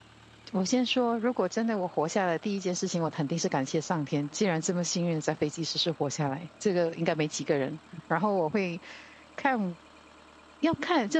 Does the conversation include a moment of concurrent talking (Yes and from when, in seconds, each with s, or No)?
No